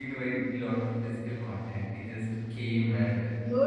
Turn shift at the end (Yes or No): Yes